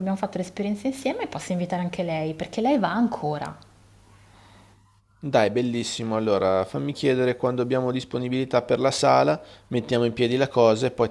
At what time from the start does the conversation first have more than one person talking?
none

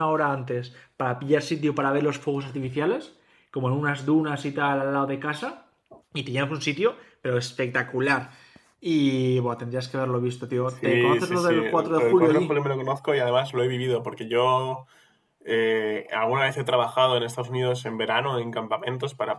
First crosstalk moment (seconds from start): 10.8 s

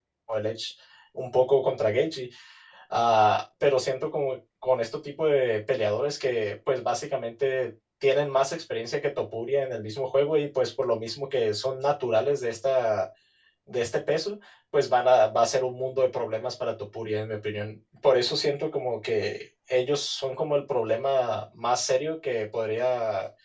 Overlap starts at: none

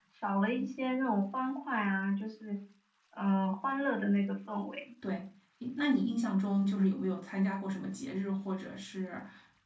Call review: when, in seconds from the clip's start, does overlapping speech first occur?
none

